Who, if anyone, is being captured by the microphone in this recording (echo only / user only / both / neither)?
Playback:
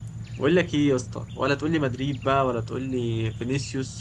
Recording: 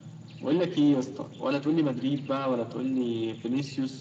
echo only